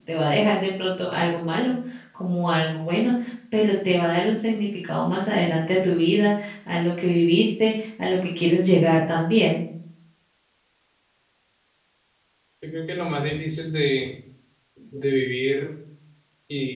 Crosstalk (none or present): none